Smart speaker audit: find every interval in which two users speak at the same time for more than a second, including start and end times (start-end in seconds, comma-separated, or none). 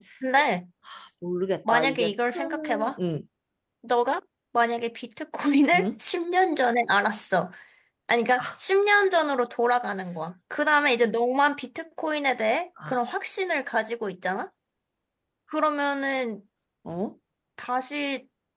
1.7-3.0